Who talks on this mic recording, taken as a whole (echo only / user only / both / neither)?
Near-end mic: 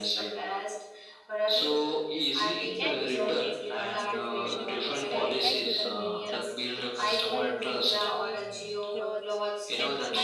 both